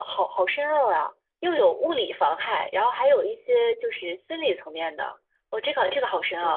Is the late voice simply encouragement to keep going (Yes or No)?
Yes